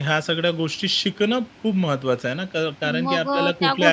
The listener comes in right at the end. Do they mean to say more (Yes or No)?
Yes